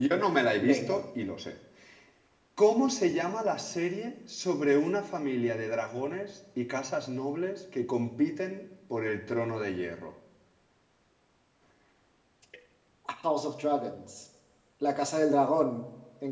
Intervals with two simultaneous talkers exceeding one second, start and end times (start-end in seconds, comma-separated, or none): none